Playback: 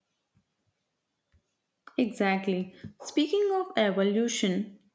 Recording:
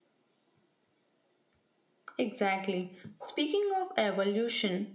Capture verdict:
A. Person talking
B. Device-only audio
B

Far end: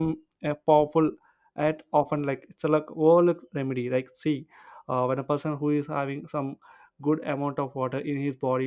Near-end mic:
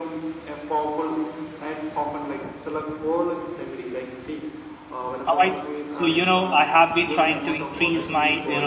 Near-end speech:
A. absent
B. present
B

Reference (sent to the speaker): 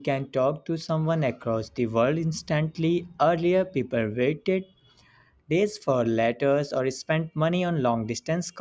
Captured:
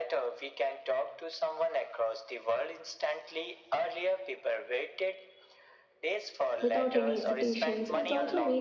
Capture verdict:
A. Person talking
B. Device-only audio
A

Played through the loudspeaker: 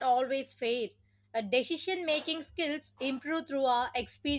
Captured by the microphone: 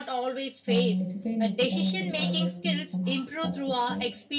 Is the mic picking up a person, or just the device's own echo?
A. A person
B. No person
A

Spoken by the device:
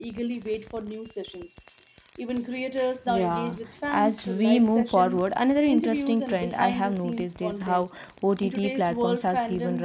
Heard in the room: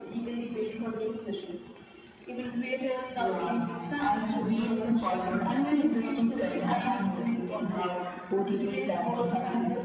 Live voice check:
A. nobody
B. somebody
A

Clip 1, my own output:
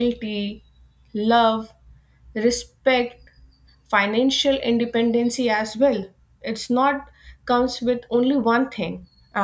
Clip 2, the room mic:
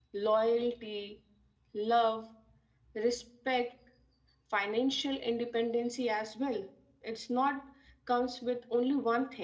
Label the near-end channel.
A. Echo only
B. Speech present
A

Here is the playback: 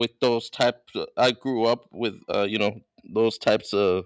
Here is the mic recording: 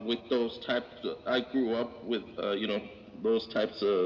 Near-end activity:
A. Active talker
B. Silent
B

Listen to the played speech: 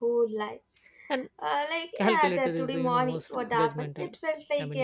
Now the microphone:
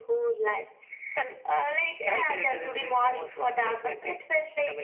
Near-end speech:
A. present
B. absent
B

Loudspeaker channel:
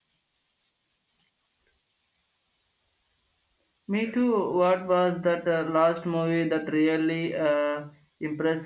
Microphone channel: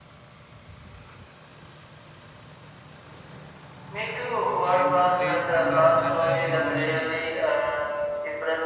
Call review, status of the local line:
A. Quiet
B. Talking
B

